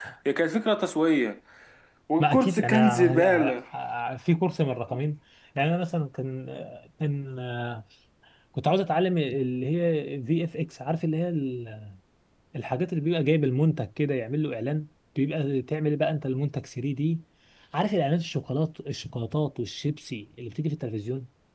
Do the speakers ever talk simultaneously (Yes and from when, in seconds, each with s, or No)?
Yes, from 2.2 s